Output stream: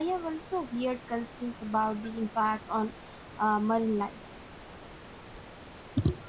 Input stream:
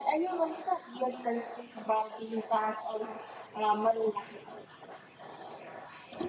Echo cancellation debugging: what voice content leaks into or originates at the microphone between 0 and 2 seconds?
echo only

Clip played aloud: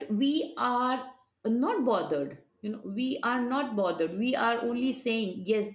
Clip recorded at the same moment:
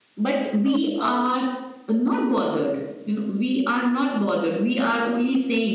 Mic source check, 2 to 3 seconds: echo only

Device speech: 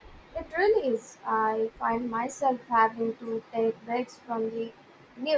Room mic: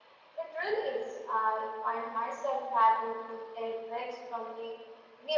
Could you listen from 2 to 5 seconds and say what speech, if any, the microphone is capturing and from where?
echo only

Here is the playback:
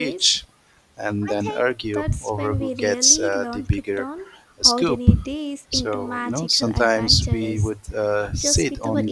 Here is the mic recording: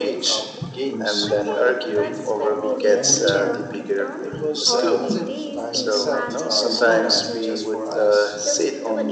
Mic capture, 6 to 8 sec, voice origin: both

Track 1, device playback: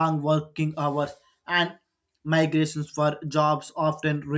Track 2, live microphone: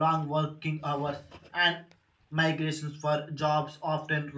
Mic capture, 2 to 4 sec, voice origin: echo only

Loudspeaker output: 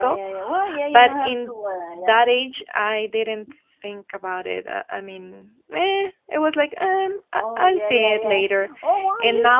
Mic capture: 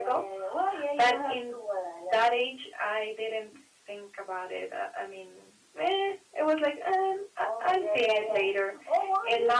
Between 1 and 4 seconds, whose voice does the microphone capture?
echo only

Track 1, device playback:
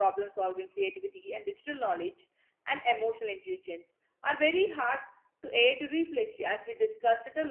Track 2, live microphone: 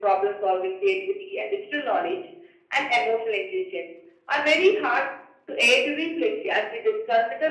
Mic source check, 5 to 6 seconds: echo only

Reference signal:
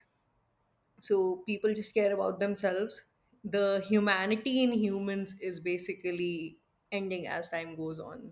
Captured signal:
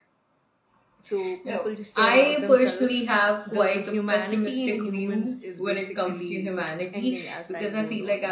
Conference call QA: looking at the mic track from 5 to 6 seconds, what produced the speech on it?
both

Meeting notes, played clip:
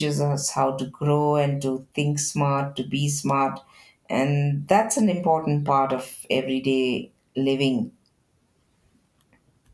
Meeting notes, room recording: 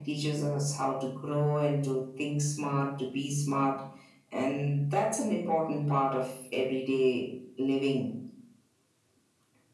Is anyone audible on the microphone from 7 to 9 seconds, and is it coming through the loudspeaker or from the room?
echo only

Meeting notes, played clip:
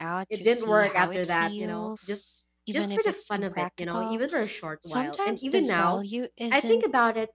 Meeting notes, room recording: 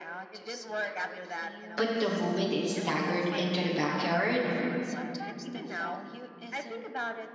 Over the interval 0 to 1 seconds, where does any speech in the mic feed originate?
echo only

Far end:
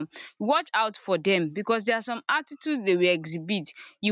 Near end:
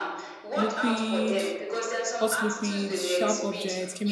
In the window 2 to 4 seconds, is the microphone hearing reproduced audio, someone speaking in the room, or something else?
both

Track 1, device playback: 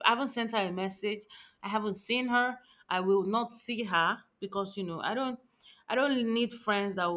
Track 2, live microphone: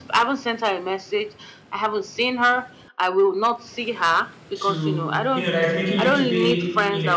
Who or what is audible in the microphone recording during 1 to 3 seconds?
echo only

